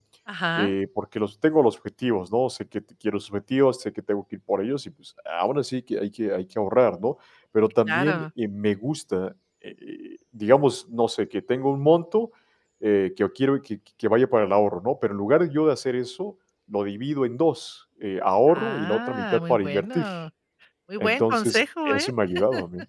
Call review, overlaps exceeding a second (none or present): present